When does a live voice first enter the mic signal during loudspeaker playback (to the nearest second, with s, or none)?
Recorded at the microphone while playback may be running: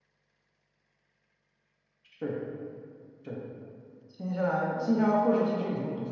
2 s